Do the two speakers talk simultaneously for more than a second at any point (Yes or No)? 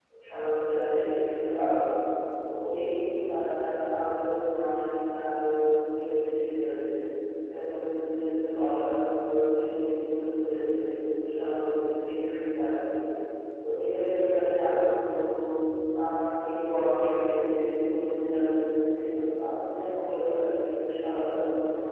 No